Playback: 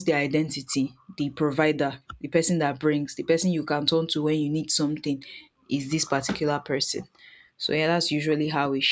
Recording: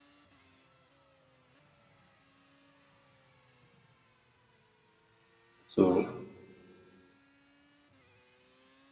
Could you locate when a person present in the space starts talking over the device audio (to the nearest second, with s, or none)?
6 s